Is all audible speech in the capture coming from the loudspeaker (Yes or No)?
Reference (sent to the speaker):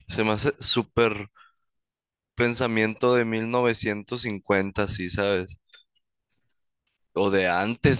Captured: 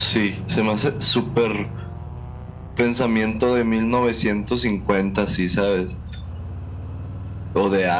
Yes